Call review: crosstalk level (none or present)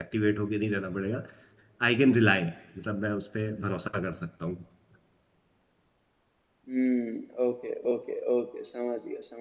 none